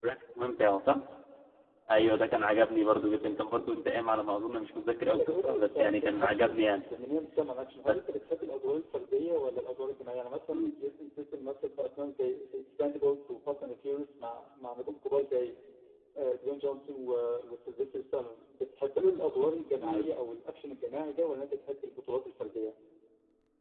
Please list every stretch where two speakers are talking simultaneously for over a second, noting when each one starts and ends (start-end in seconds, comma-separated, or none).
5.2-6.7